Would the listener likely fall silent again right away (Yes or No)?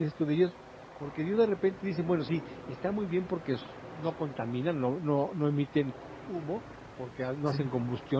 Yes